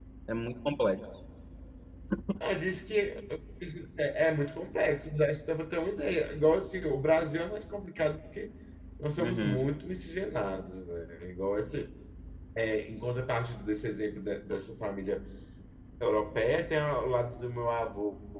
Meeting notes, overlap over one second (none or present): none